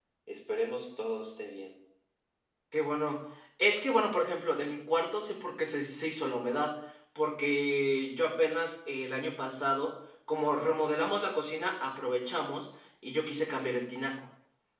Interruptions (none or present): none